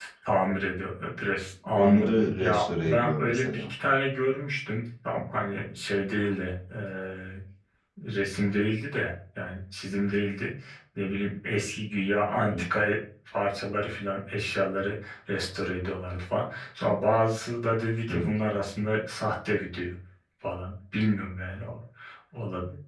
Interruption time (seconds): 1.7 s

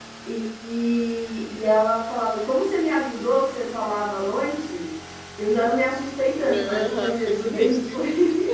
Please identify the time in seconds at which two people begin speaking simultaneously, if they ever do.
6.4 s

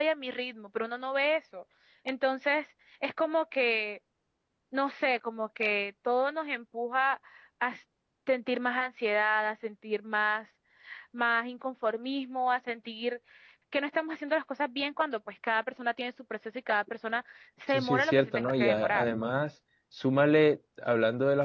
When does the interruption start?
17.7 s

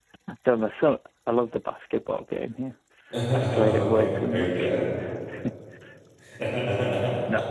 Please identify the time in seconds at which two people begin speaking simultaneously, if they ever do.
3.3 s

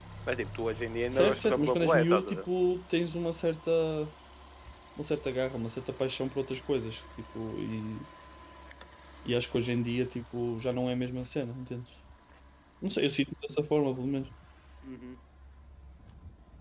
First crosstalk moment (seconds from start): 1.1 s

